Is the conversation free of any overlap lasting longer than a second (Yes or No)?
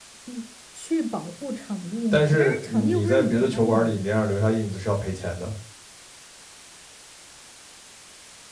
No